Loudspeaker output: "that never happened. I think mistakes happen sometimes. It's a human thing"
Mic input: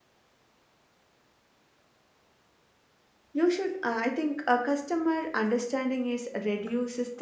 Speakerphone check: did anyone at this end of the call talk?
Yes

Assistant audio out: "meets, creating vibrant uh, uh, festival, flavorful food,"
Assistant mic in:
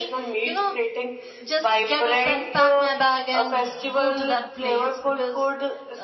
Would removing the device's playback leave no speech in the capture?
No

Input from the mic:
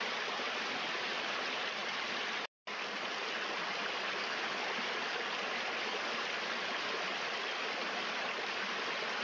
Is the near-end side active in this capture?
No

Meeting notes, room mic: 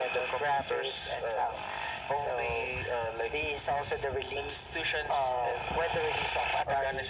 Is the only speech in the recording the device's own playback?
Yes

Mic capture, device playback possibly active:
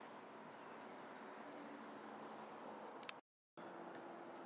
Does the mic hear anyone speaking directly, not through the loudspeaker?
No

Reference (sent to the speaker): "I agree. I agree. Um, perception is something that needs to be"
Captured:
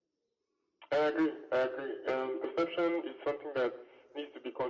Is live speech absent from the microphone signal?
Yes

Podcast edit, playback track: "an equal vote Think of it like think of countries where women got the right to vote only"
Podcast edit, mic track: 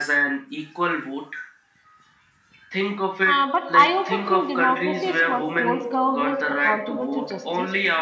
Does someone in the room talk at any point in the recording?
Yes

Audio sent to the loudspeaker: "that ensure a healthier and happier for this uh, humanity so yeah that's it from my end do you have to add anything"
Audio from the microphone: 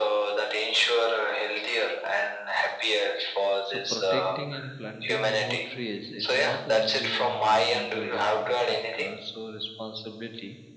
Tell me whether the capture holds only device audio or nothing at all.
No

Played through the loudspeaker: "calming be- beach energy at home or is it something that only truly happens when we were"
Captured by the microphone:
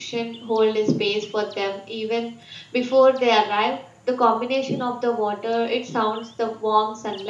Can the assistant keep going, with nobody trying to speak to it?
No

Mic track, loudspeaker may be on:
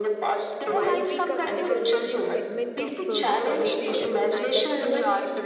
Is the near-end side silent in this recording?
No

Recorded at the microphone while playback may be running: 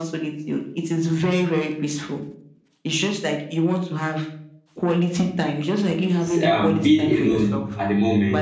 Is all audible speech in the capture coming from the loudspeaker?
No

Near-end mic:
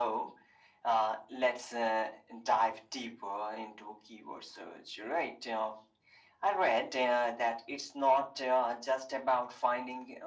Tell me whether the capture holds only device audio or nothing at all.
Yes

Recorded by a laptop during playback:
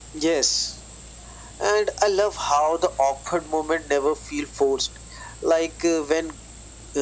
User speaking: No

